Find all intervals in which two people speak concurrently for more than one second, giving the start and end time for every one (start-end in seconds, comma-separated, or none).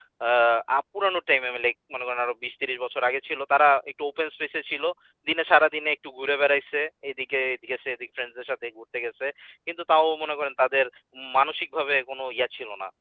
none